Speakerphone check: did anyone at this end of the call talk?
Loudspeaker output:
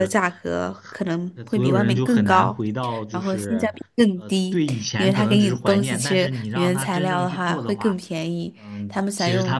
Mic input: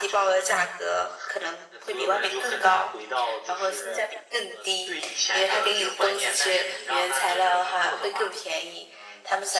No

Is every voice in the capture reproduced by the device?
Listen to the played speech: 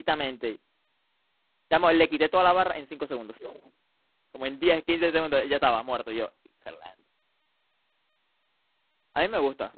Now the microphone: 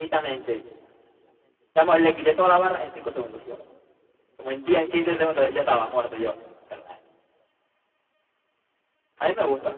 Yes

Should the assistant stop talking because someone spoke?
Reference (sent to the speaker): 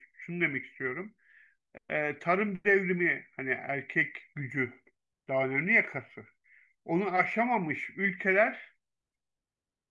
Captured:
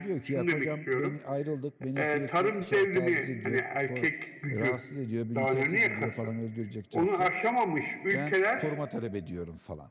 Yes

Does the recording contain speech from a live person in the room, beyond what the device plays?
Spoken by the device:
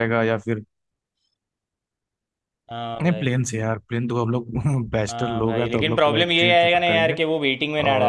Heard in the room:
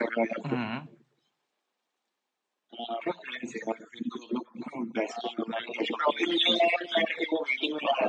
Yes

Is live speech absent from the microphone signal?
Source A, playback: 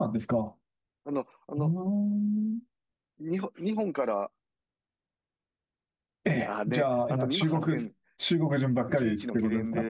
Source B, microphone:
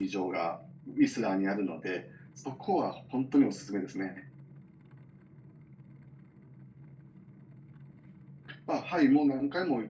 No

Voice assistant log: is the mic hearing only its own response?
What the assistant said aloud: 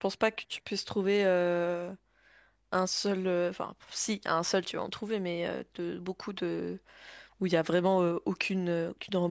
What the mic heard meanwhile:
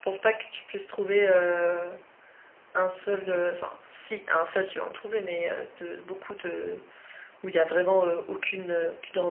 Yes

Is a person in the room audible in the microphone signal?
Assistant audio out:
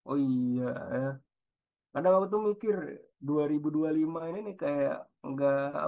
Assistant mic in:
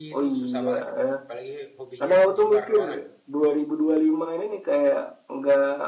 Yes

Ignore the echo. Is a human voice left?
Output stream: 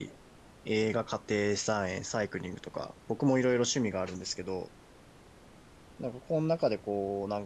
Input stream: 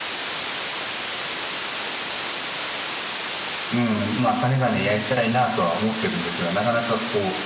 Yes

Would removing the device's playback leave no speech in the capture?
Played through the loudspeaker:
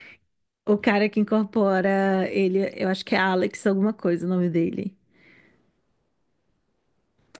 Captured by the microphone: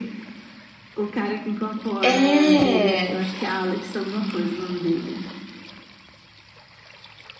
No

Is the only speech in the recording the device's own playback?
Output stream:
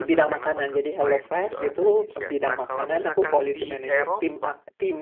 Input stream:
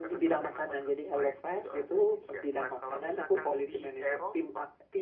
Yes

